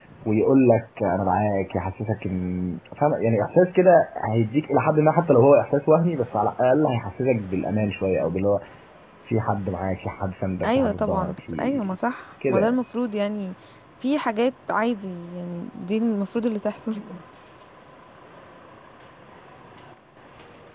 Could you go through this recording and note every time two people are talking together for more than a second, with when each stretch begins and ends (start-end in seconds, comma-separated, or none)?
10.6-12.0